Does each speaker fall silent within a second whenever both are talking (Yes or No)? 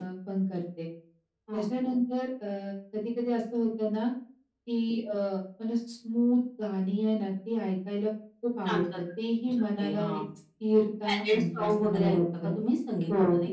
No